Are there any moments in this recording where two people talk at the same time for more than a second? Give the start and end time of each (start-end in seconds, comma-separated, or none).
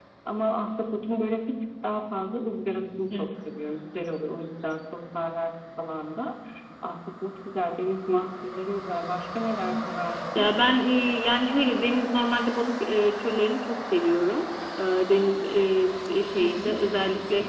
none